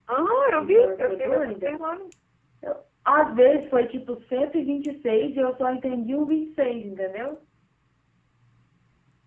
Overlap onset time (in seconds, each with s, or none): 0.6 s